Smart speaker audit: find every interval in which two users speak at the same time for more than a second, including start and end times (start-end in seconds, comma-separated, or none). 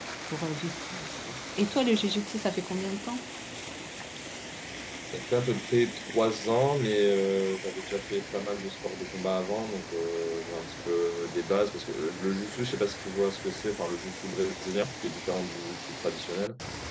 none